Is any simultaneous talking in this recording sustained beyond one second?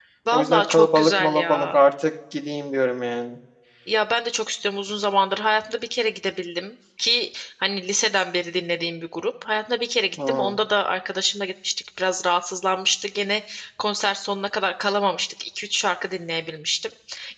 Yes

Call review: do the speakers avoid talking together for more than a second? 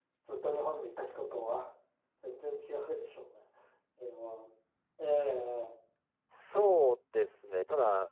Yes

